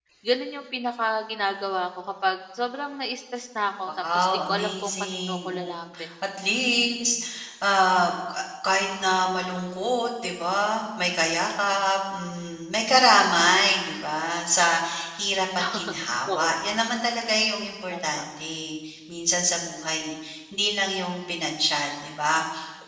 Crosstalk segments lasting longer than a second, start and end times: 4.1-5.8

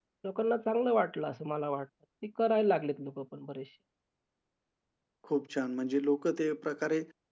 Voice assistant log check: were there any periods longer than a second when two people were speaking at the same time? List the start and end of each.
none

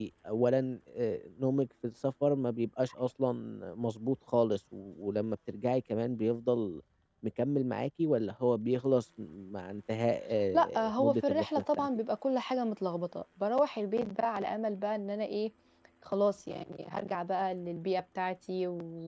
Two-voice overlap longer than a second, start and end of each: 10.5-11.9

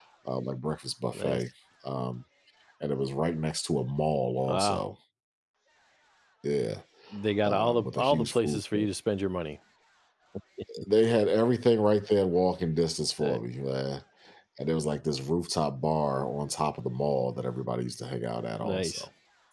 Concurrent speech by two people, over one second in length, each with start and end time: 7.4-8.9

